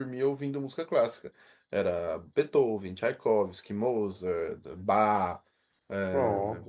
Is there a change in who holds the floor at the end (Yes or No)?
No